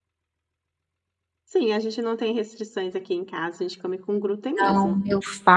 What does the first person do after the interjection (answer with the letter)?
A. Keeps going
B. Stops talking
B